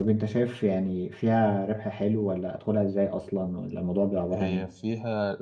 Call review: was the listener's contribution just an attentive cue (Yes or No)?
No